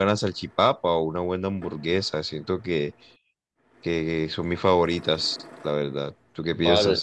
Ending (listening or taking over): taking over